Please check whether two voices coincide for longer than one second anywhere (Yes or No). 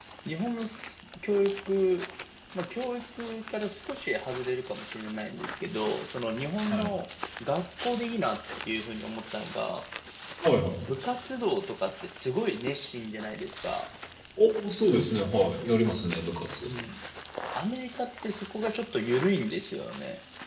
No